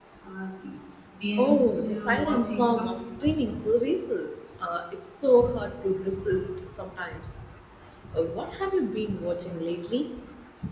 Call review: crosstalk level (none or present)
present